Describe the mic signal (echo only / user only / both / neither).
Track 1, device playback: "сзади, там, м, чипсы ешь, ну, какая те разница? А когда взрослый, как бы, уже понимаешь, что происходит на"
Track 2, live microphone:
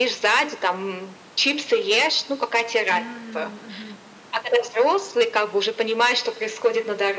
both